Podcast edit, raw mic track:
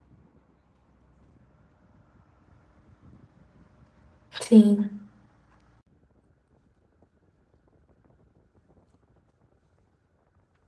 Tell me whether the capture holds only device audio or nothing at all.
No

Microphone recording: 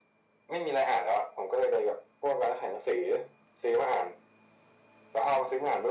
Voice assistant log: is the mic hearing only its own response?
Yes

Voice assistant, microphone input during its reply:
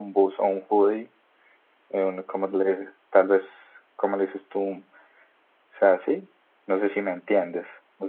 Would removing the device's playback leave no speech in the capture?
No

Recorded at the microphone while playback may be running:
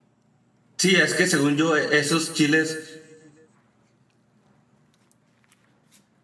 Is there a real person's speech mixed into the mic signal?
Yes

